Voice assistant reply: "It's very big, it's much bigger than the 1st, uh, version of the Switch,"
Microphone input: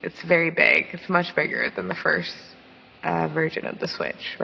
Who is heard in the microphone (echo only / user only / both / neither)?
echo only